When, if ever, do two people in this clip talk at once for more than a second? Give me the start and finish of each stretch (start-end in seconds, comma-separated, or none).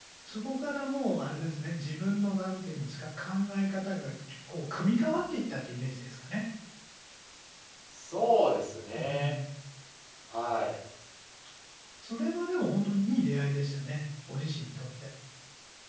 none